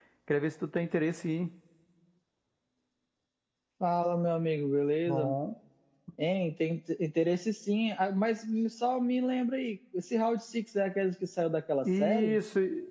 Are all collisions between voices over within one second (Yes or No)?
Yes